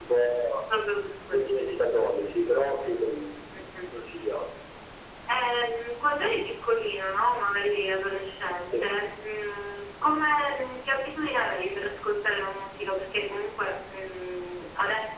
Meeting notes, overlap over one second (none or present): none